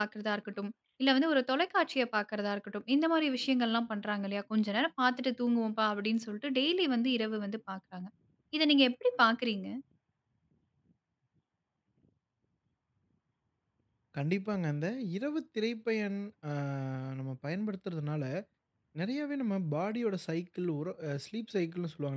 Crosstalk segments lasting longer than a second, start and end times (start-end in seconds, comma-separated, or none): none